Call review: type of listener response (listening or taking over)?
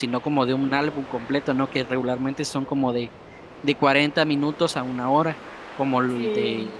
listening